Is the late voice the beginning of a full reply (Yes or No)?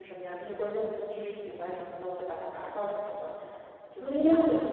Yes